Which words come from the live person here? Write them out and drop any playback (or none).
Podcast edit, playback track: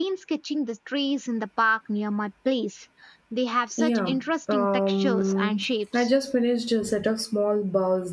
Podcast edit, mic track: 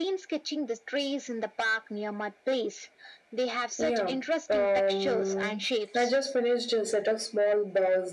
none